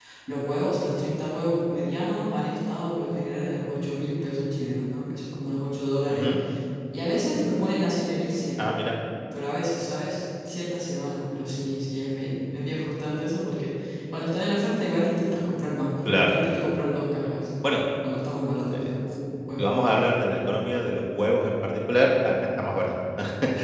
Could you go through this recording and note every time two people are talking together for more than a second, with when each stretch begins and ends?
none

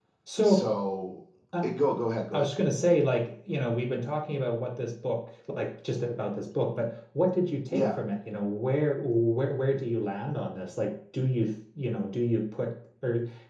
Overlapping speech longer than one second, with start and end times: none

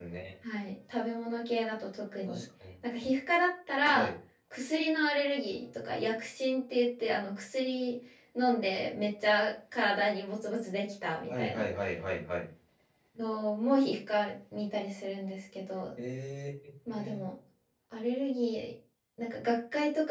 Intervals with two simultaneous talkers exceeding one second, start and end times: none

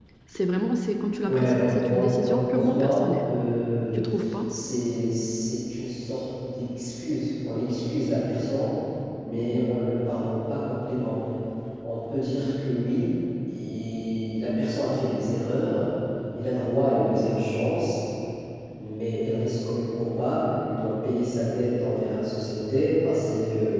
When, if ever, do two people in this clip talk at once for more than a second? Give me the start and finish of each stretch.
1.3-3.3

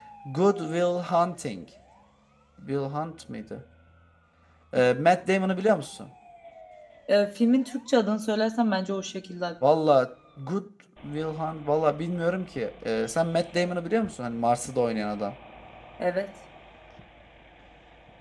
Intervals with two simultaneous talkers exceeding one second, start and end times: none

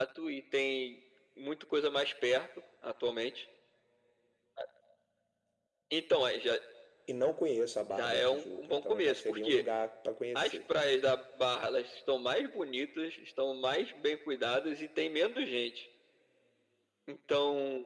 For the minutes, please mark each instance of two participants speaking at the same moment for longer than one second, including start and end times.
8.0-9.6

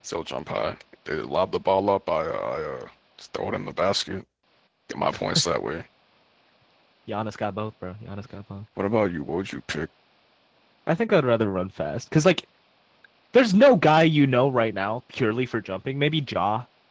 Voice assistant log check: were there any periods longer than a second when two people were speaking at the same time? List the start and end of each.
none

